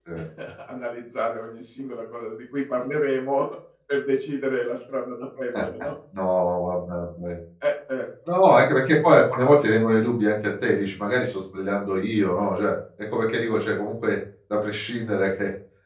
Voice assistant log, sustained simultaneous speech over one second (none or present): none